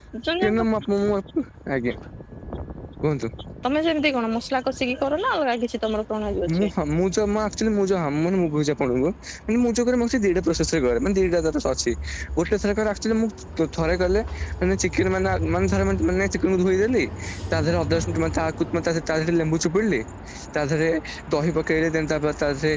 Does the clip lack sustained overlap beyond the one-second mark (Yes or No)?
Yes